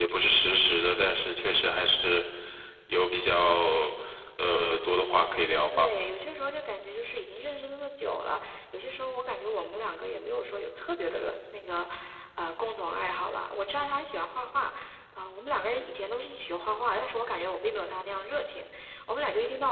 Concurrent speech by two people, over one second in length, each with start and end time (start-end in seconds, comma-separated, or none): none